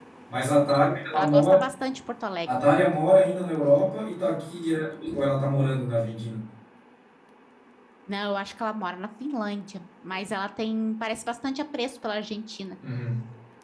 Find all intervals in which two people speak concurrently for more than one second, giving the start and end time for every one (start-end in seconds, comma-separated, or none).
none